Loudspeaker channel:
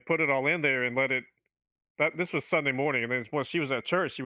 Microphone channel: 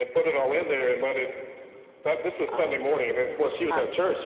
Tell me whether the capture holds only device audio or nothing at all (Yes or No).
No